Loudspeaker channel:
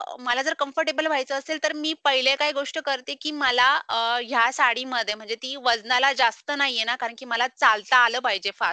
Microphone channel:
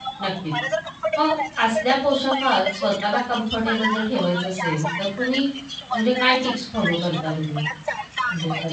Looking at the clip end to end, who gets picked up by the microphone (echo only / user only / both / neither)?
both